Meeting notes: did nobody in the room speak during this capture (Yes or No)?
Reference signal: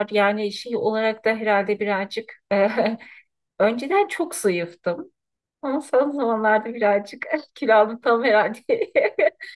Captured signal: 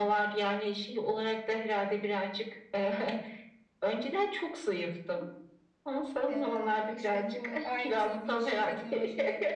No